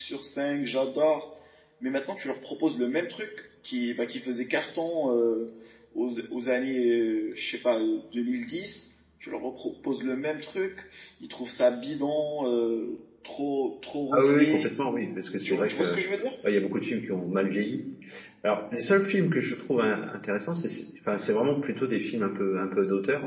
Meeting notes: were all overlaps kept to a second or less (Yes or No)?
Yes